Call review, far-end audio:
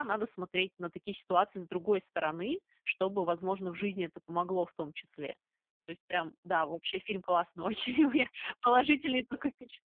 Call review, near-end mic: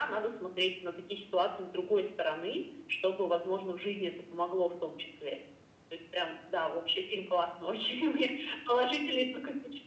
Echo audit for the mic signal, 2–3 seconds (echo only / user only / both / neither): echo only